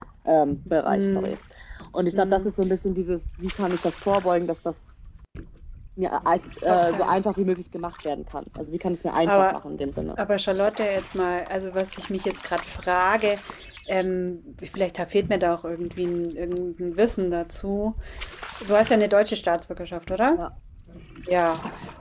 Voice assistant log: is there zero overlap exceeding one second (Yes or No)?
Yes